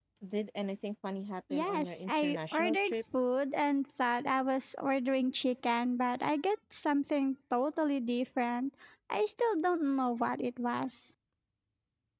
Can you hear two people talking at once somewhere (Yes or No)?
Yes